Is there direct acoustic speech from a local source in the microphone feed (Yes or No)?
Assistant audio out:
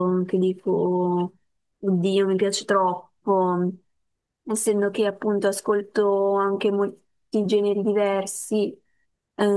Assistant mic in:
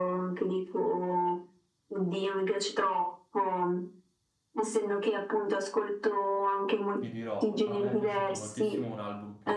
Yes